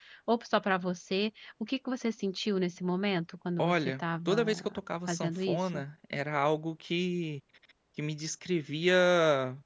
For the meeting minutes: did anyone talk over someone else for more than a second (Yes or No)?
Yes